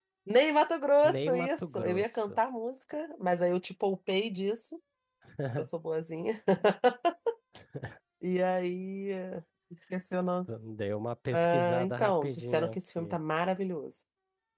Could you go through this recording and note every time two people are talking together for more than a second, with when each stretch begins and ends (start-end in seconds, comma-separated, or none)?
1.0-2.4, 11.3-13.1